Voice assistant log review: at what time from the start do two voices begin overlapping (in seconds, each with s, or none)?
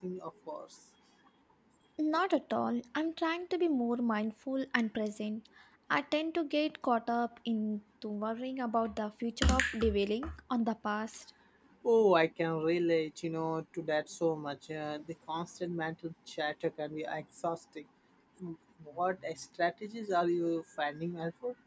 none